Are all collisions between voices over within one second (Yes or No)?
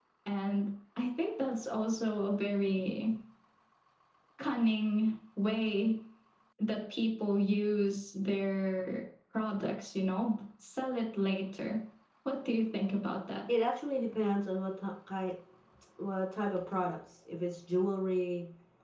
Yes